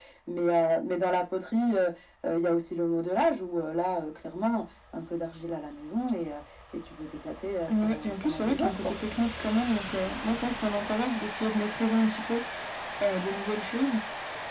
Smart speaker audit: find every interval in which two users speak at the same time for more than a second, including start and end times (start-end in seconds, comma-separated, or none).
7.7-8.9